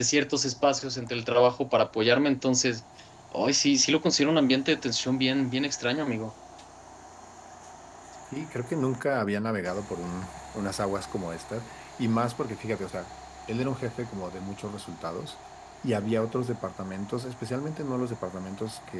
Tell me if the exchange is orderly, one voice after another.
Yes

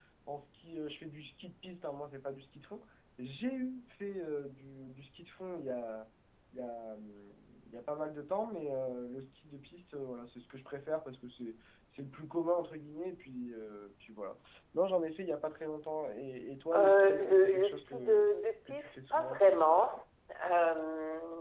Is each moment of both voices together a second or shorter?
No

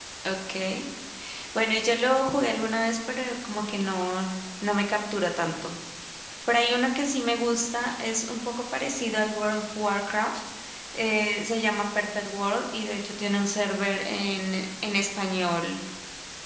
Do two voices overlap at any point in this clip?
No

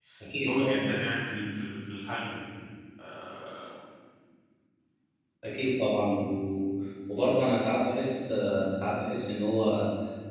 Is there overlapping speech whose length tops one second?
No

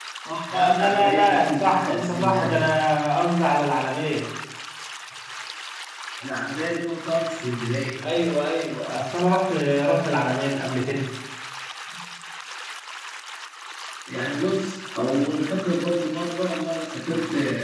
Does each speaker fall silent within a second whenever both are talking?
No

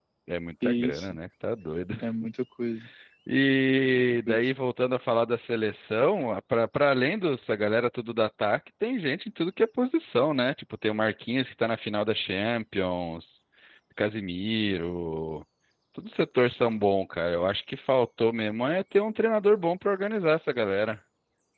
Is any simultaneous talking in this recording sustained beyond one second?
No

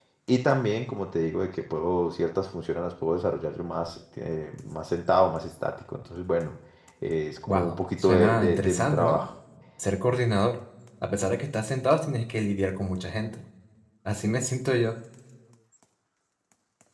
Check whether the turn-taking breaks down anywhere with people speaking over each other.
Yes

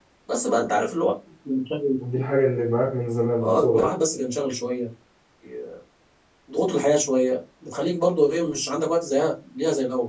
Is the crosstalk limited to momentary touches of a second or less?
Yes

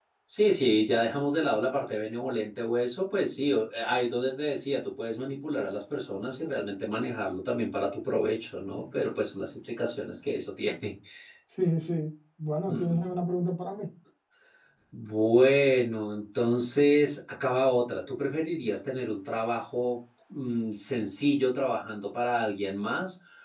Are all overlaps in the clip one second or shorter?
Yes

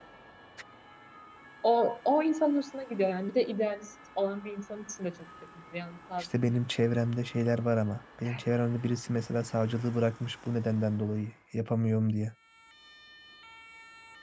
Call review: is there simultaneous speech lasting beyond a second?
No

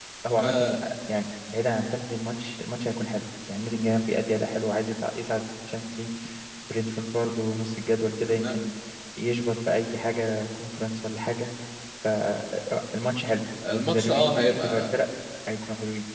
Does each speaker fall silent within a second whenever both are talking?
No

